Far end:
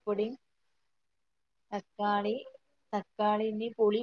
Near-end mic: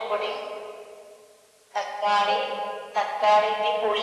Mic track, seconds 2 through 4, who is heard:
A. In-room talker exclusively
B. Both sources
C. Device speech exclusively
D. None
C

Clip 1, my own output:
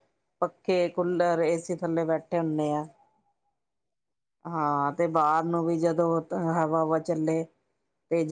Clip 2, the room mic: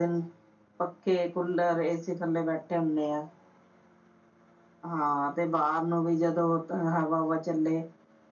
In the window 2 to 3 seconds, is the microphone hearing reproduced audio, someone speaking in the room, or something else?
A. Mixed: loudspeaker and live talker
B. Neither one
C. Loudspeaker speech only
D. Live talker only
C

